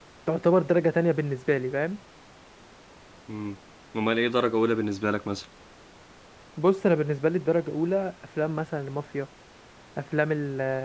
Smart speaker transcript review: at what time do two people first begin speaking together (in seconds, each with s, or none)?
none